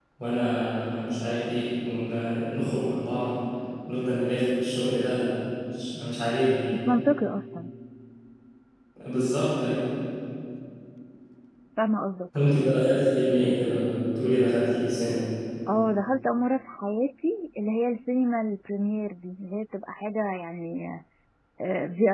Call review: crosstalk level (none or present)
none